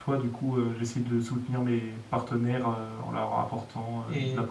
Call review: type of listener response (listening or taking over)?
taking over